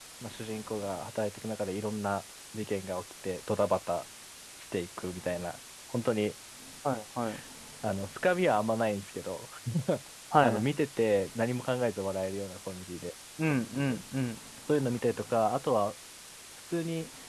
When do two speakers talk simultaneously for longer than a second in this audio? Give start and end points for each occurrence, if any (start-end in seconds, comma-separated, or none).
none